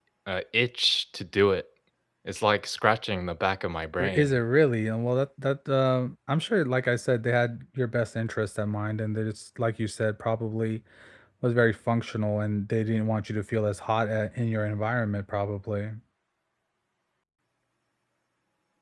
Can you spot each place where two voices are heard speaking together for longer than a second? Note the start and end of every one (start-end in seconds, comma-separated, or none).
none